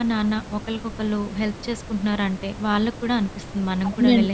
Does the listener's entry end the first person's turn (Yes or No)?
Yes